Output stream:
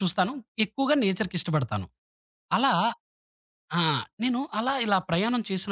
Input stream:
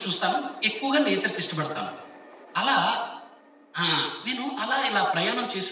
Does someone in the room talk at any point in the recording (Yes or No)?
No